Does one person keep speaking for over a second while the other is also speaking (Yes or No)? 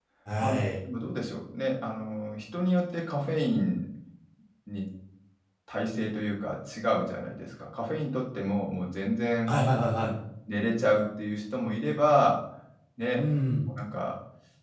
No